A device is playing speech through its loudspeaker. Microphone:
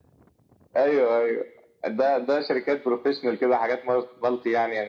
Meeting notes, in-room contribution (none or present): none